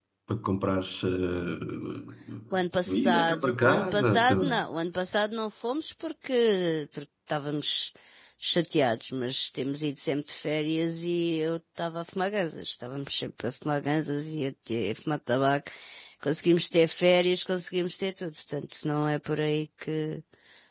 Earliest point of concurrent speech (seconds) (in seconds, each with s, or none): 2.9 s